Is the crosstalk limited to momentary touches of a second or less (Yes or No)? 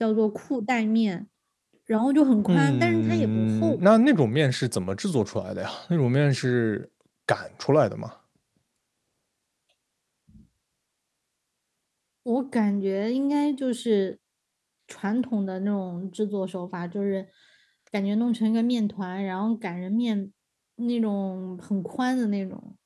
No